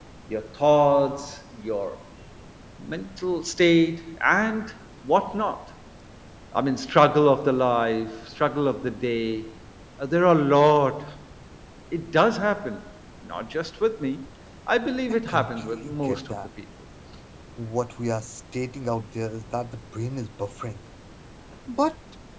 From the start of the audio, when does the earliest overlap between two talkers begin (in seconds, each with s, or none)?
15.1 s